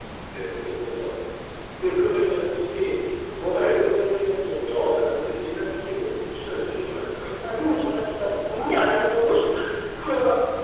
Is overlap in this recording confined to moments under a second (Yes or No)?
Yes